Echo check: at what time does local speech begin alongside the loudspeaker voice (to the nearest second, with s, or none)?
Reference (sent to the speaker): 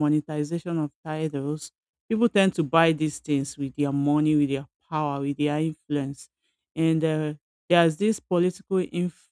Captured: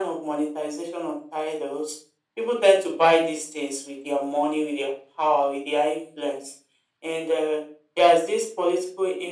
none